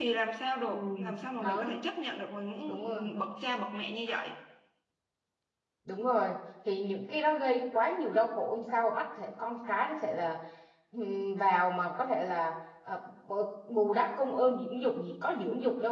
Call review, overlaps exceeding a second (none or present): none